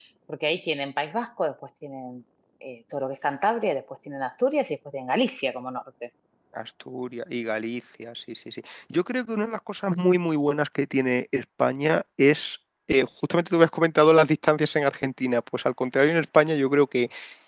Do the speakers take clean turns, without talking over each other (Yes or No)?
Yes